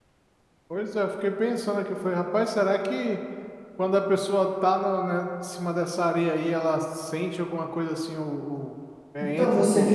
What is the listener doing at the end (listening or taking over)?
taking over